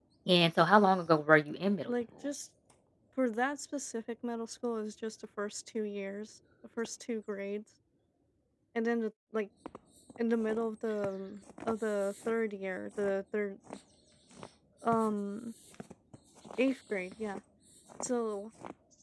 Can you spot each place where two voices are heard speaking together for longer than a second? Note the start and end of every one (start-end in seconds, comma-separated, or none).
none